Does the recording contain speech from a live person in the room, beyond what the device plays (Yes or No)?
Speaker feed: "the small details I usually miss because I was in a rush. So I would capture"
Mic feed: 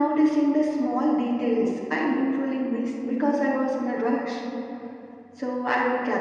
No